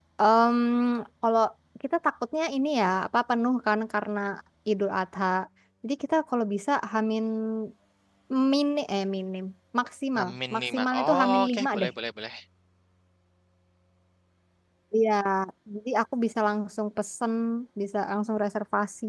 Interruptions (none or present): present